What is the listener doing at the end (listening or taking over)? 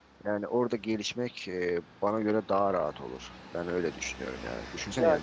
listening